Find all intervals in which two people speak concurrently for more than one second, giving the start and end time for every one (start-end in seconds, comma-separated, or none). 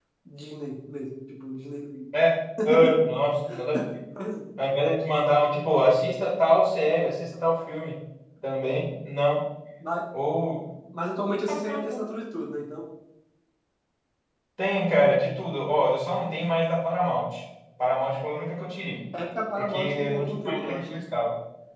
19.6-21.0